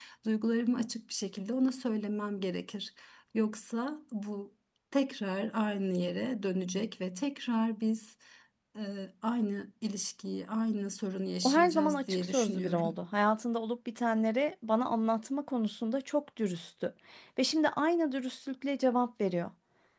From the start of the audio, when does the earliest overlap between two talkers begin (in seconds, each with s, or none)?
11.4 s